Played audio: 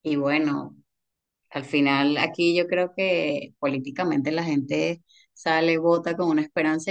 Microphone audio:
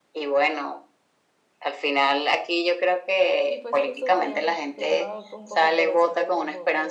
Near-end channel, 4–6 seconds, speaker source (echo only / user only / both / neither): both